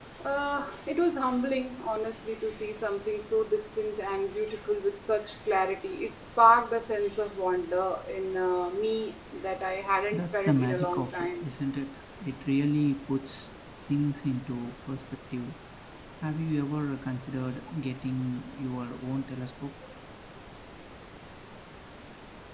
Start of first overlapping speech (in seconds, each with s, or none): 10.1 s